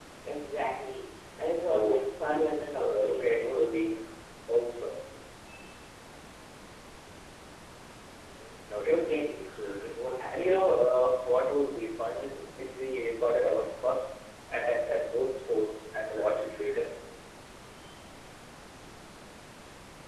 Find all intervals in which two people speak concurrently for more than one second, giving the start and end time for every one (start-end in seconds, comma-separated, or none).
1.7-3.8